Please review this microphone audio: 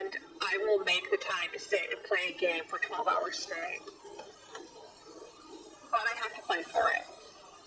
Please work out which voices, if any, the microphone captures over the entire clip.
echo only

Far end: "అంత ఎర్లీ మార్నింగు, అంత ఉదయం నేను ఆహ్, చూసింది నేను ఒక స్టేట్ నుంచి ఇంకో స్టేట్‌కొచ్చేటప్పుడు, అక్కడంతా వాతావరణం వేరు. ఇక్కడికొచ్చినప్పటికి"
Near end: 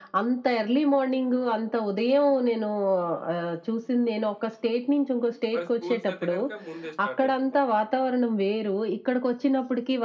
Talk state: both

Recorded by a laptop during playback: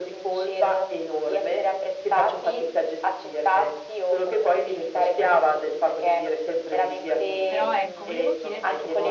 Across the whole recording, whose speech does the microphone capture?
both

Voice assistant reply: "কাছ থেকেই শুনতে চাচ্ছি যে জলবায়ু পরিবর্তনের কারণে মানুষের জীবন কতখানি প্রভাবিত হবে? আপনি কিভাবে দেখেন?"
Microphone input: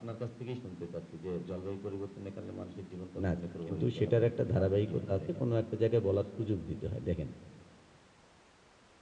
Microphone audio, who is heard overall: both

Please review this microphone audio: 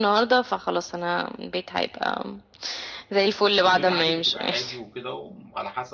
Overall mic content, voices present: both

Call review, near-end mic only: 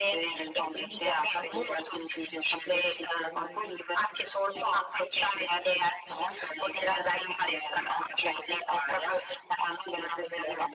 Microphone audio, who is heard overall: echo only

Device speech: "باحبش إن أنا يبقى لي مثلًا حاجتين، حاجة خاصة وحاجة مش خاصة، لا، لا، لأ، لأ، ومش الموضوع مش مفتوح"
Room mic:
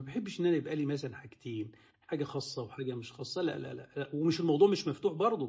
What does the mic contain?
echo only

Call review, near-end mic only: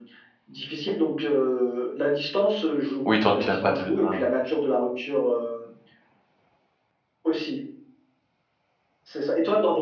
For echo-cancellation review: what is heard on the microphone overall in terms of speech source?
both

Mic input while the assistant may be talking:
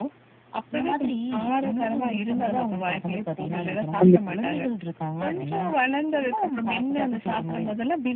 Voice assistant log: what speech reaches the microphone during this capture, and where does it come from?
both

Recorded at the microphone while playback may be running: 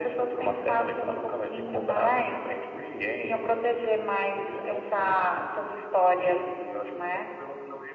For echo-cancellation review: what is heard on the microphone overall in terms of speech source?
echo only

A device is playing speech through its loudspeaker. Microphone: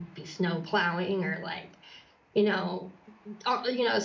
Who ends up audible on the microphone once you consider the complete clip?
user only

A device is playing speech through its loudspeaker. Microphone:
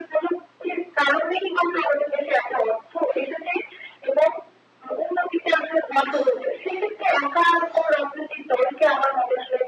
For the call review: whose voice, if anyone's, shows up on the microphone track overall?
echo only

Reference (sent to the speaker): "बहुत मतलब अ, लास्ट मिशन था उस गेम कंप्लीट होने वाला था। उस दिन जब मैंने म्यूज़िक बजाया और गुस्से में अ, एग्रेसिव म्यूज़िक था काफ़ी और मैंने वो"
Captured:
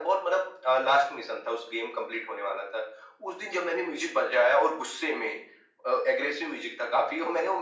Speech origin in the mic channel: echo only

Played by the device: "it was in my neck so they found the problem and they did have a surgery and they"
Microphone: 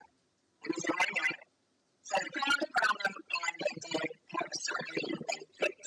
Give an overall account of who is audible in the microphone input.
echo only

